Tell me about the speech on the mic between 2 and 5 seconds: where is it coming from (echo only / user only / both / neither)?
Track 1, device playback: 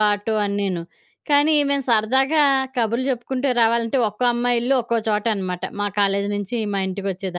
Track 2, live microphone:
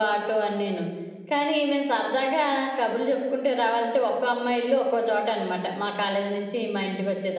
echo only